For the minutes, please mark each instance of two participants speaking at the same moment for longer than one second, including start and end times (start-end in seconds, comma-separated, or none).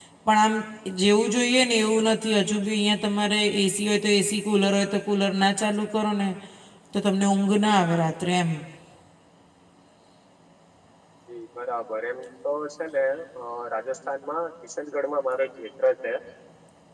none